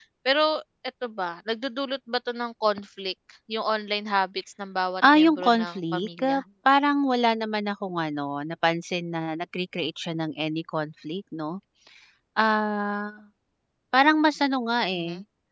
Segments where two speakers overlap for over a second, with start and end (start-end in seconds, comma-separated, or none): 5.1-6.4